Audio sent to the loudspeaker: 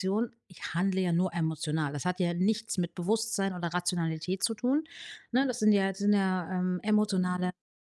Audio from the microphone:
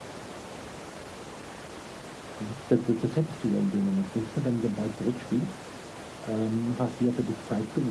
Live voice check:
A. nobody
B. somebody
B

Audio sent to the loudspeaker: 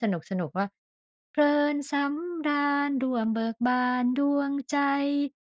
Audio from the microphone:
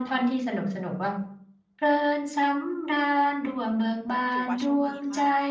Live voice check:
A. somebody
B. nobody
A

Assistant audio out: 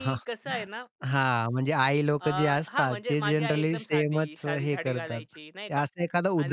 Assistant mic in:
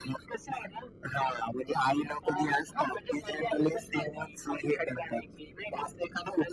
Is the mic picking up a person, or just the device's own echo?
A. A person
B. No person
B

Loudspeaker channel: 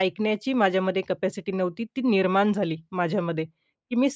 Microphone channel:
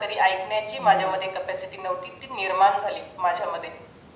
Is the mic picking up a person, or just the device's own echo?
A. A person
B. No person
A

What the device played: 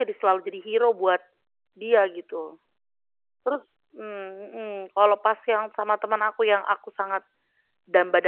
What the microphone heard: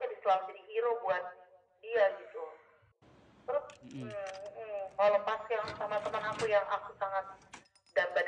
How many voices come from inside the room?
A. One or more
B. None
A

